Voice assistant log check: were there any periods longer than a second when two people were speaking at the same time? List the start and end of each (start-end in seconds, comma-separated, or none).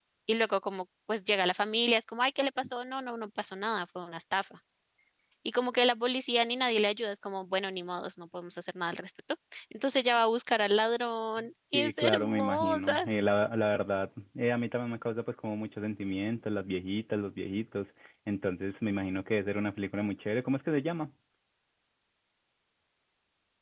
11.7-13.1